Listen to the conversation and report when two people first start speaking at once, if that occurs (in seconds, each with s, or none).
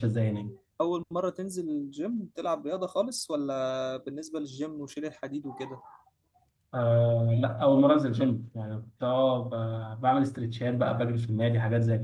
none